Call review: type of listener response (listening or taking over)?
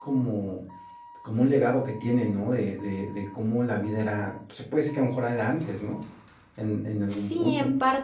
taking over